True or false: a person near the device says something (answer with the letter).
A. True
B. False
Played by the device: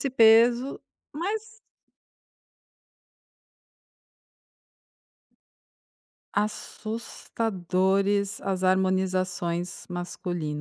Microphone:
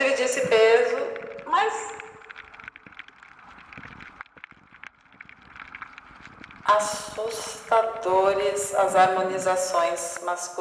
B